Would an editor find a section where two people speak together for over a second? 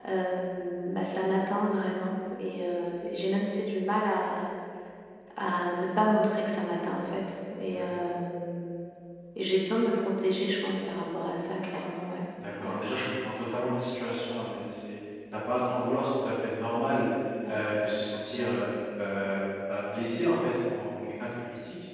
No

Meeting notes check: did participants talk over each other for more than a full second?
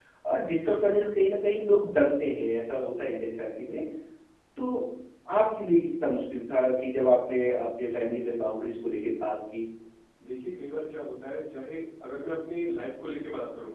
No

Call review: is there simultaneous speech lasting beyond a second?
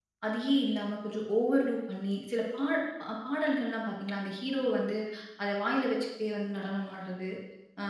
No

